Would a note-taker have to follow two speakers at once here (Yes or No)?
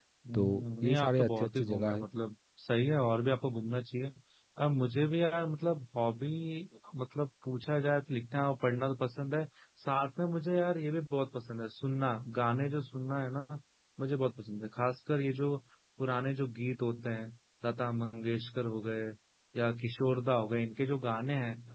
Yes